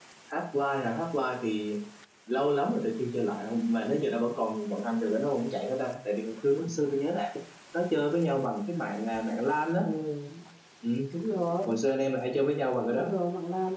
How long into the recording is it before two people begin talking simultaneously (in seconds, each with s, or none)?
none